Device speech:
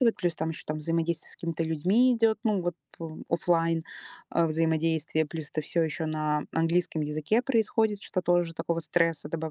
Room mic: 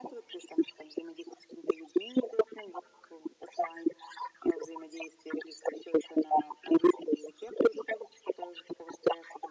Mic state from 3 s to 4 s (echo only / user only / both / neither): echo only